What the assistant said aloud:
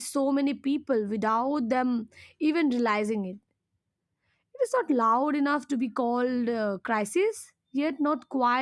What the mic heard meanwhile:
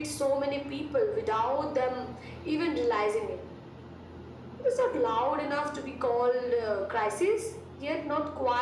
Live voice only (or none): none